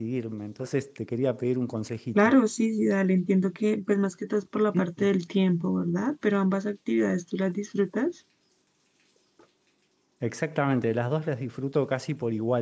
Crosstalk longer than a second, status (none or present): none